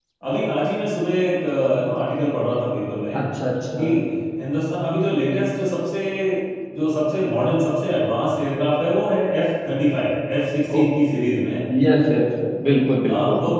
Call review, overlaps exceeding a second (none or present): none